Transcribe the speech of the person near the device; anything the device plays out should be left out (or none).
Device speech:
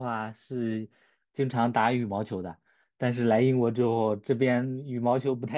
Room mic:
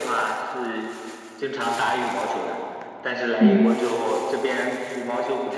嗯。